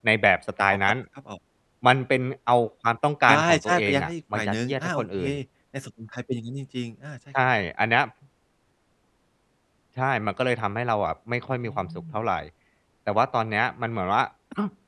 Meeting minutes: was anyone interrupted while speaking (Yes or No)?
Yes